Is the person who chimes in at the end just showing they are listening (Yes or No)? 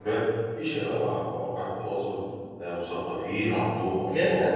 No